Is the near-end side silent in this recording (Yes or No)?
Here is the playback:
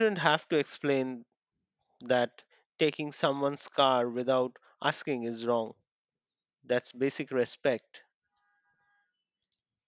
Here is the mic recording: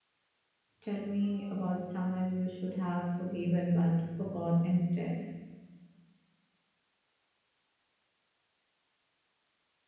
No